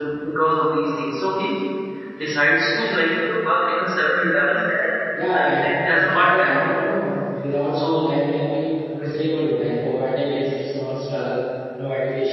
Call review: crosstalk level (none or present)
present